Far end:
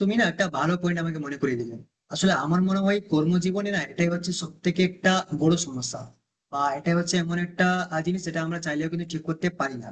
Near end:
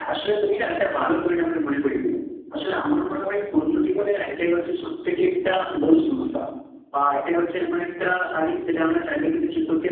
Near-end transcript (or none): none